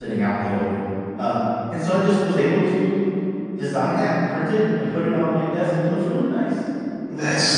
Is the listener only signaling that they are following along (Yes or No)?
No